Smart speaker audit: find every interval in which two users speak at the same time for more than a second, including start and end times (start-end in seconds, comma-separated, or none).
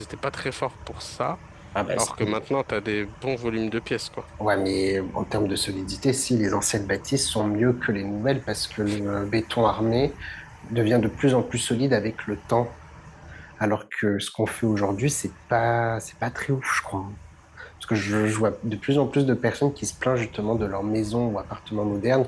none